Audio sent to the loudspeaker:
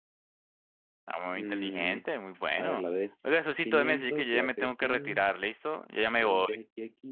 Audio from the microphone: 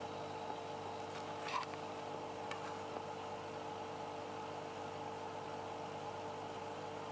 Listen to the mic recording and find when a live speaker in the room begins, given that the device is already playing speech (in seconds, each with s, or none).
none